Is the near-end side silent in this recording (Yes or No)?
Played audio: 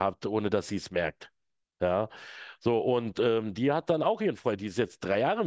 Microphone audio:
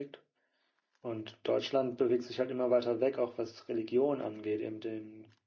No